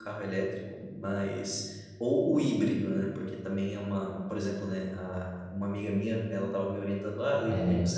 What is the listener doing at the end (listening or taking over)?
listening